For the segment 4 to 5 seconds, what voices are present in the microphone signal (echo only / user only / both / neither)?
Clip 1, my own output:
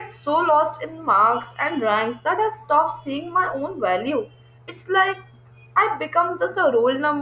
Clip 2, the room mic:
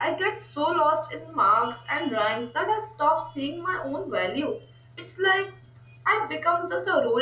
echo only